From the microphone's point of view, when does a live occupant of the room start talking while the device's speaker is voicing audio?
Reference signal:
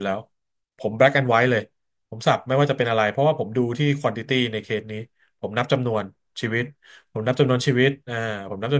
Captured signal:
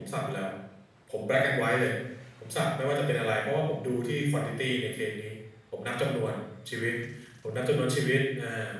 none

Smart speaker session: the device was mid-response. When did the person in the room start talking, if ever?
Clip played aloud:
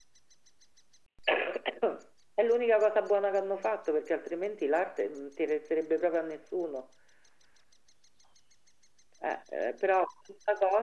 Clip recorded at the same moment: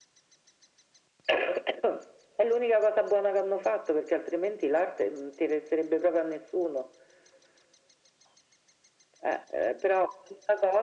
none

